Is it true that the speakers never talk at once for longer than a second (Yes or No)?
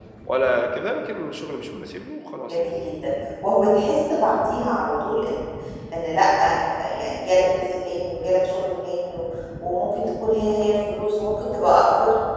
Yes